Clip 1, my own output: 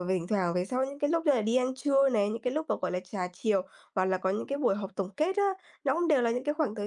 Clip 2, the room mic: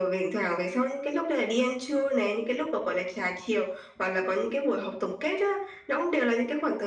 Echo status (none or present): present